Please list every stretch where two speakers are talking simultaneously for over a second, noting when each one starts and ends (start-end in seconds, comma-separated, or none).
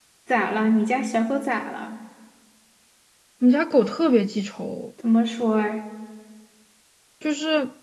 none